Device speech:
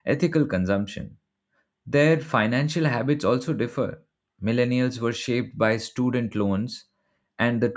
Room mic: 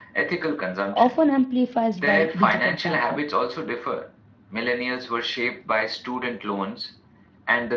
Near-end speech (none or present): present